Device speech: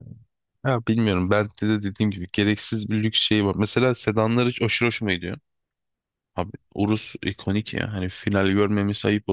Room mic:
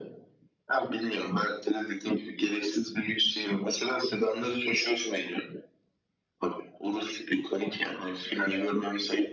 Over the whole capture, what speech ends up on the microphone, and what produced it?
echo only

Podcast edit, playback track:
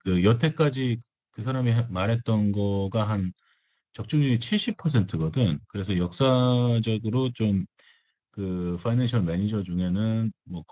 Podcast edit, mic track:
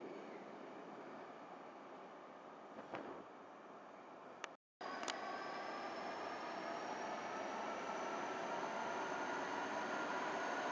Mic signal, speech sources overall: neither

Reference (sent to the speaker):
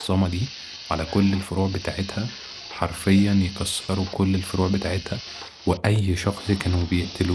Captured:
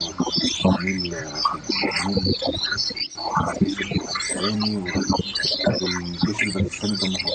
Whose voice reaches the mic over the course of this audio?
both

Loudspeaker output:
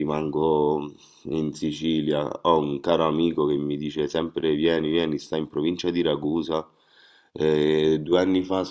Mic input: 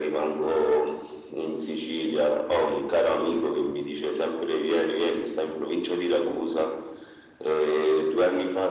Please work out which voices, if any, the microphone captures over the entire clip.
echo only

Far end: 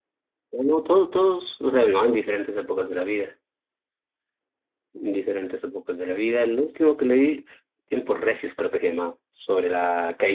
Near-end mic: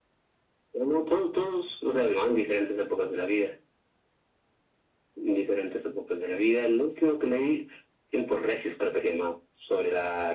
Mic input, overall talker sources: echo only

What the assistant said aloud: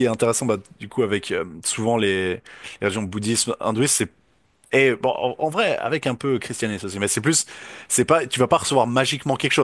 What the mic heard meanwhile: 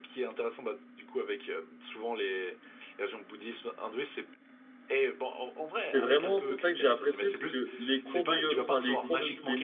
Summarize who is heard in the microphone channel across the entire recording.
both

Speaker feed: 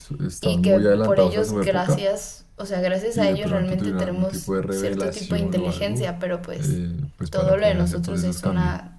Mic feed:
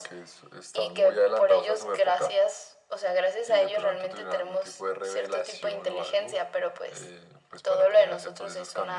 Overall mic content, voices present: echo only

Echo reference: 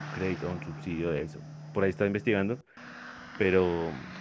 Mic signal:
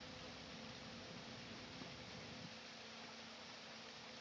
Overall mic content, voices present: neither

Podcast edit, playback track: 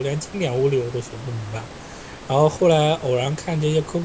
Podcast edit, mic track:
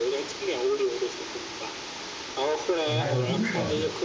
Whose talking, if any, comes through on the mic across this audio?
both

